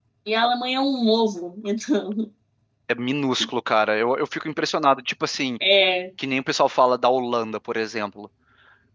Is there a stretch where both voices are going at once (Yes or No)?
No